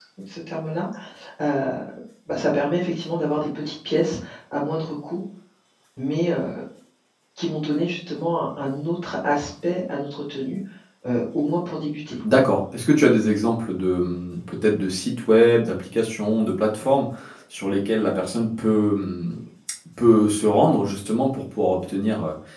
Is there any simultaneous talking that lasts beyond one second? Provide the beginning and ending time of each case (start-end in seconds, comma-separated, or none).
none